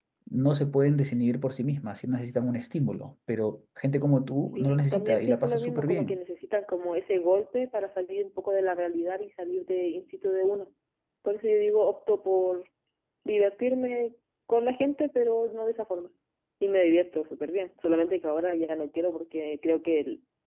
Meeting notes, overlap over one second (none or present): present